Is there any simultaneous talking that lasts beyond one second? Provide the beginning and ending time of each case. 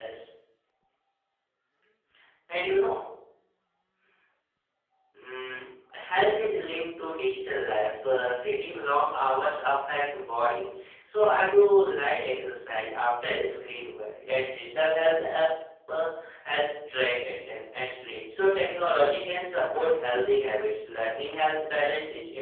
none

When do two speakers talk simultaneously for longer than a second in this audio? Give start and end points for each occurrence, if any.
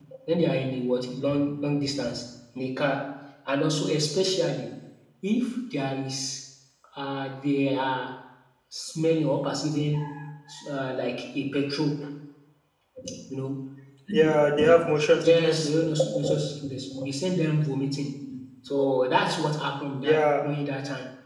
none

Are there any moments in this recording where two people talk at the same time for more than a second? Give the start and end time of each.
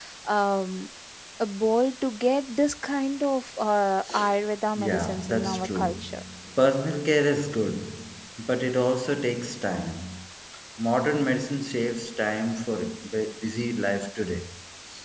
4.8-6.2

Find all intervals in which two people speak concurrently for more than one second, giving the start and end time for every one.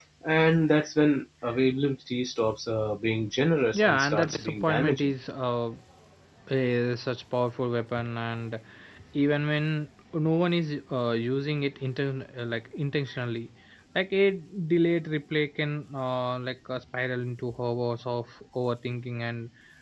3.7-5.1

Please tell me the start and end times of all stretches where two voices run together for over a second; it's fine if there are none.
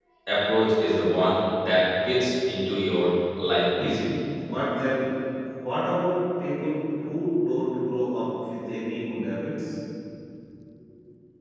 none

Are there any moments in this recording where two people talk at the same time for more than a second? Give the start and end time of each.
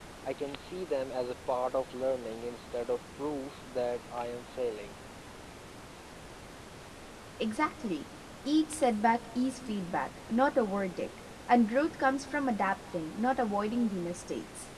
none

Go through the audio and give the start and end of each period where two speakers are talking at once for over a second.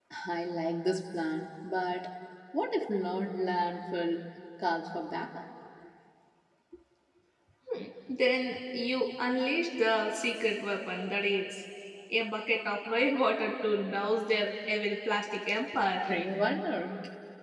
none

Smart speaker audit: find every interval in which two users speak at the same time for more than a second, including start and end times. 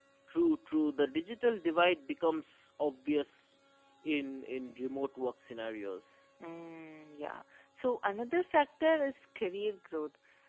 none

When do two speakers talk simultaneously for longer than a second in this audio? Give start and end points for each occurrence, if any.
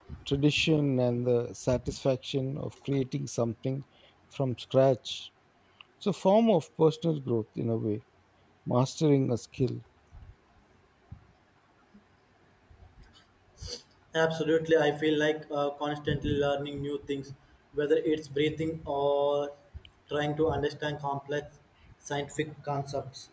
none

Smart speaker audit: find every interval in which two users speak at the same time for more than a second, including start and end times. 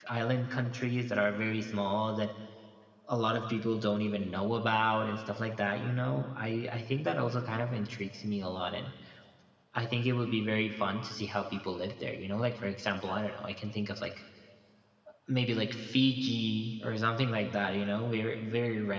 none

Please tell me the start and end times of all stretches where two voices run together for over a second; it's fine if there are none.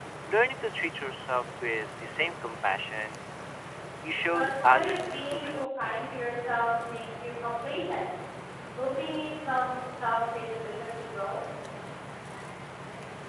4.3-5.7

